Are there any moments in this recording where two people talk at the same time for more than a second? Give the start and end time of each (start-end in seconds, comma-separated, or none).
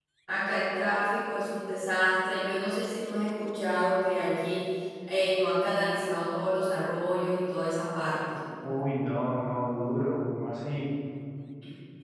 none